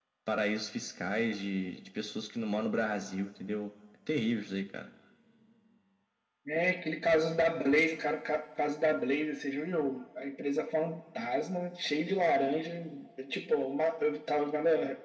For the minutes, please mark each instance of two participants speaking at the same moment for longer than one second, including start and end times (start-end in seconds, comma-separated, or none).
none